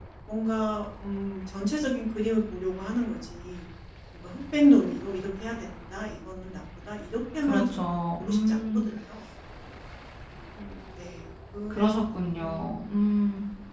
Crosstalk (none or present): present